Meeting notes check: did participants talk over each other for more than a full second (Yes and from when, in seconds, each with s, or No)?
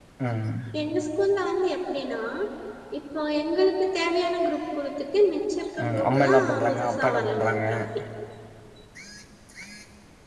Yes, from 5.8 s